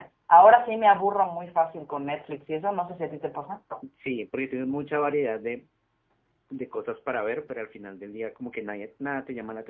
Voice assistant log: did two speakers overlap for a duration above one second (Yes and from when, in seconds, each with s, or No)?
No